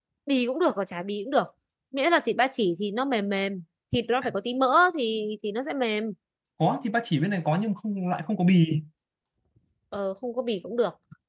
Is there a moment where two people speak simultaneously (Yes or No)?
No